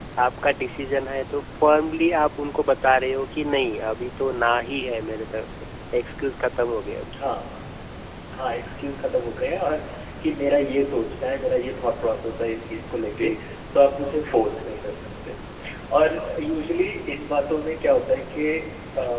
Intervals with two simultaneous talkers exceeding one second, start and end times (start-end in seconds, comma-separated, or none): none